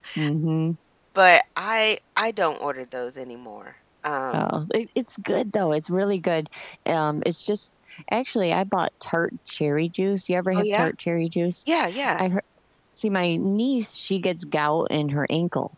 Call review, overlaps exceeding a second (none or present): none